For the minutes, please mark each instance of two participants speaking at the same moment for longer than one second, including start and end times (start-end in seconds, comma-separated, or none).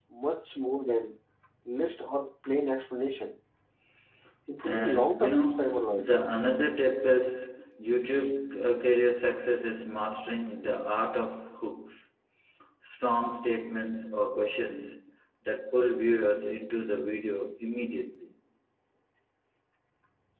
4.6-6.2